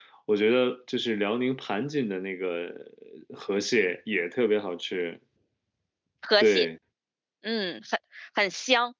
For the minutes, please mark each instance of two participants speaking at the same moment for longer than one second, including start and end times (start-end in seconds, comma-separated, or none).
none